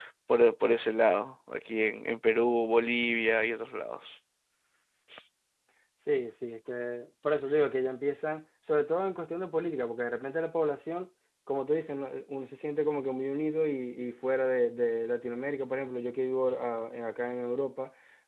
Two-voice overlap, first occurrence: none

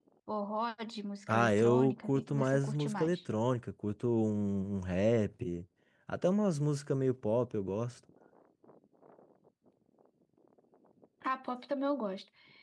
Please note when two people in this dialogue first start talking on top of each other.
1 s

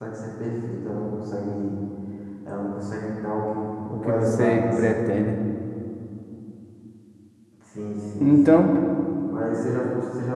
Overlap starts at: 4 s

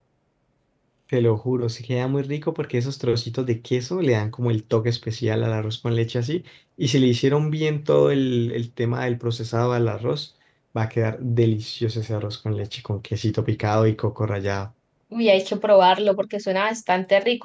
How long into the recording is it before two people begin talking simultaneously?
none

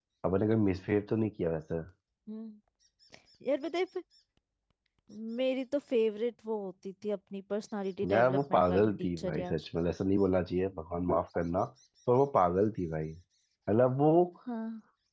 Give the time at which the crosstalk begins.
8 s

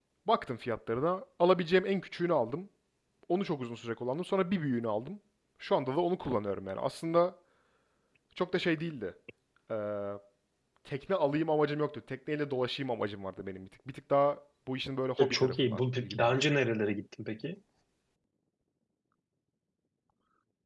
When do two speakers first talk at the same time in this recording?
15 s

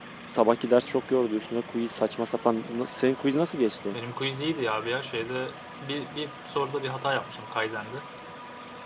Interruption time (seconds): none

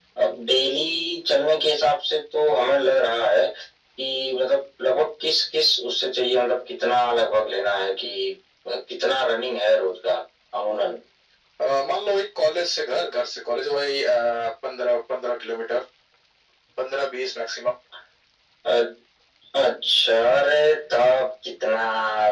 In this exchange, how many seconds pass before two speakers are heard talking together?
none

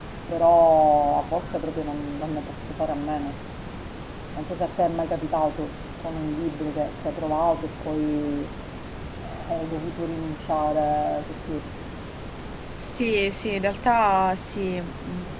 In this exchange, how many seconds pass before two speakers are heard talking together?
none

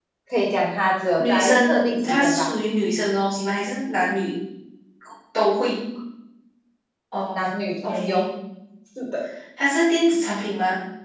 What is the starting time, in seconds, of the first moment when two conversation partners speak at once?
1 s

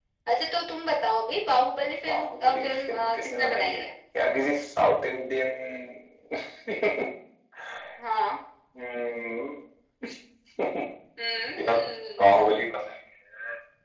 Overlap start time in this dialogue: 2 s

